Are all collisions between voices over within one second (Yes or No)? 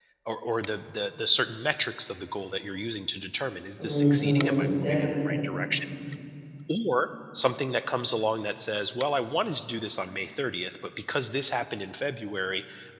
No